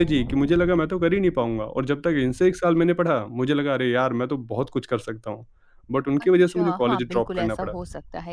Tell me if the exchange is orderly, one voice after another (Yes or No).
No